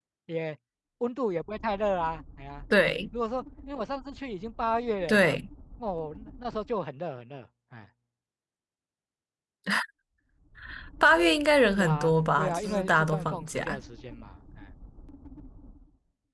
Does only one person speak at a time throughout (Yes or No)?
No